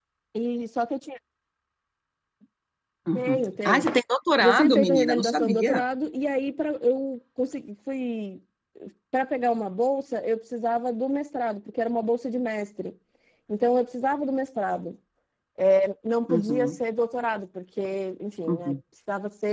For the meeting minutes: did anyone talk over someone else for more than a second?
Yes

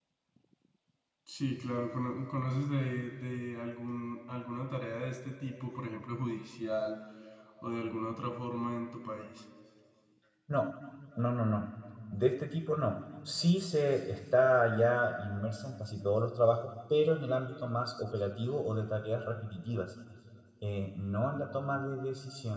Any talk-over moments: No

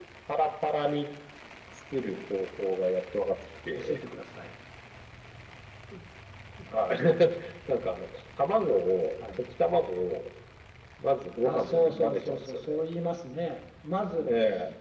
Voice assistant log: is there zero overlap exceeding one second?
No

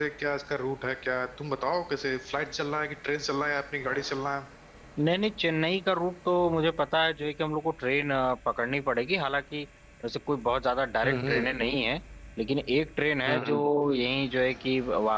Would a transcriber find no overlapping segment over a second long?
Yes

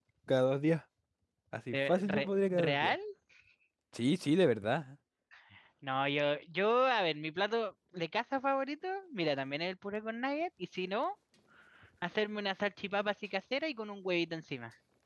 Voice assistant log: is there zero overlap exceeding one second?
No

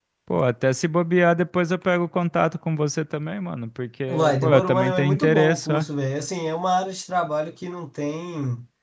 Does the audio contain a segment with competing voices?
Yes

